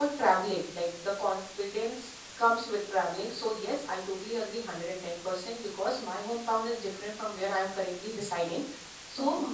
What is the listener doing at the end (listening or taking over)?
listening